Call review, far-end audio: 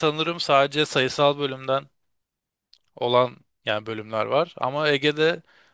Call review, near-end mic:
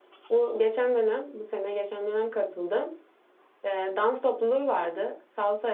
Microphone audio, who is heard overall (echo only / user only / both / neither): user only